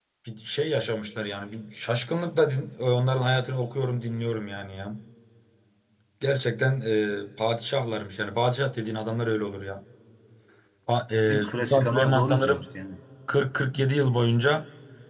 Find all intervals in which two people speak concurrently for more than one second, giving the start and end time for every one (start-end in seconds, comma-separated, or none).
11.3-12.6